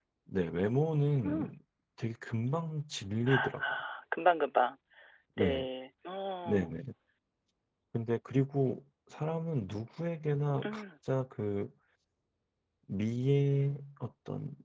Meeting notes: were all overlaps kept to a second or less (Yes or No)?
Yes